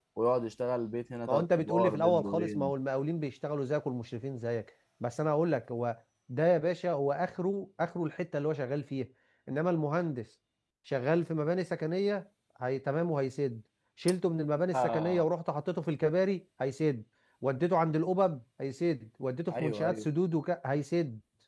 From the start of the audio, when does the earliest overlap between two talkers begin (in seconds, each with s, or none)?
1.3 s